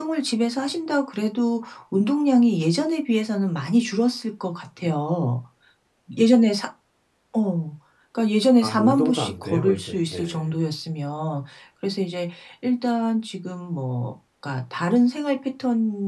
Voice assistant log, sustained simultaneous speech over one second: present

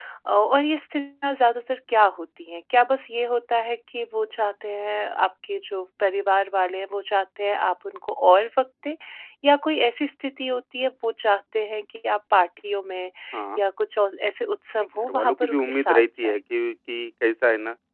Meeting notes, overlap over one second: present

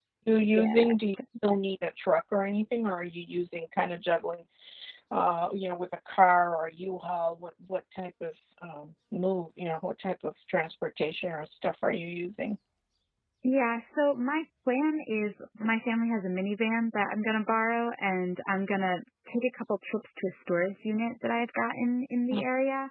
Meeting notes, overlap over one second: none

